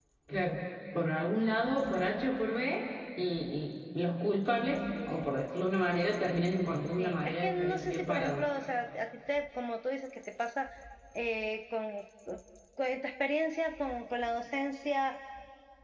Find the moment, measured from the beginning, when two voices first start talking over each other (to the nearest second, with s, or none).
7 s